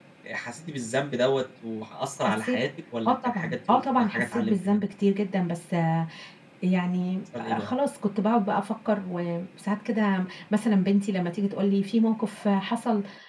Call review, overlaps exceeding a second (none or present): present